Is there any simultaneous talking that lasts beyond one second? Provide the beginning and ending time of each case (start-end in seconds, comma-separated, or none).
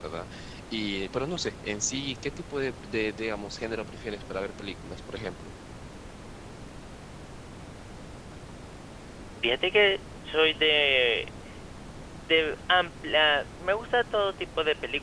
none